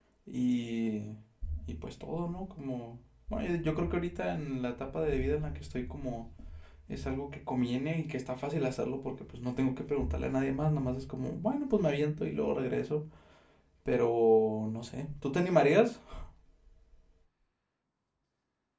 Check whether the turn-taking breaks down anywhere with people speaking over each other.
No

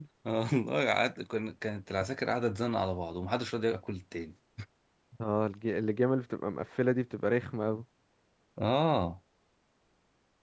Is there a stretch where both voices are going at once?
No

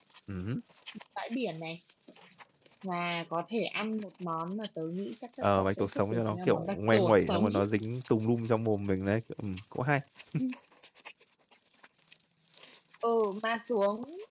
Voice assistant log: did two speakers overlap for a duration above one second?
Yes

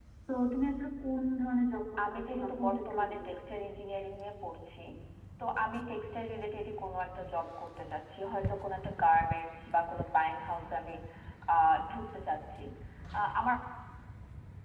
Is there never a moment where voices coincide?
No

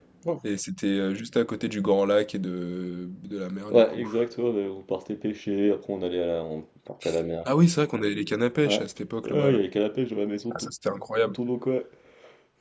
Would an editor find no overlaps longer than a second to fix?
Yes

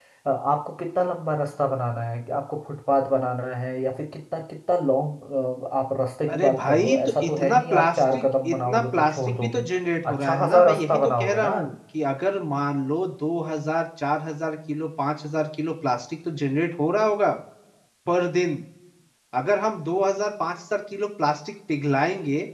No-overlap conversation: No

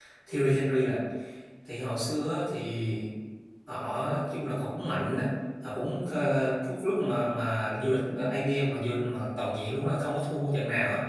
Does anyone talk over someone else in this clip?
No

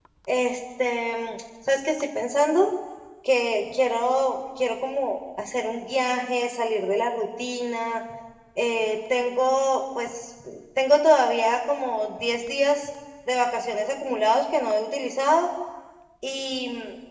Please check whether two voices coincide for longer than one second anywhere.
No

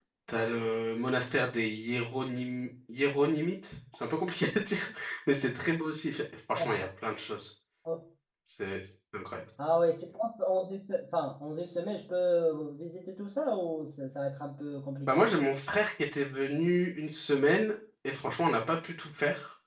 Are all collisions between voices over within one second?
Yes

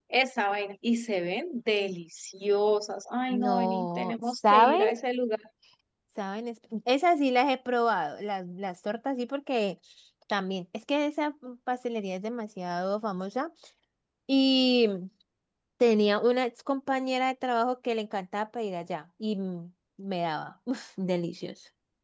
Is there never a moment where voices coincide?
No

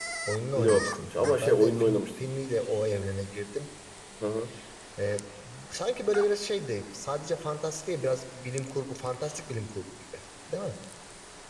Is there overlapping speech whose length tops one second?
Yes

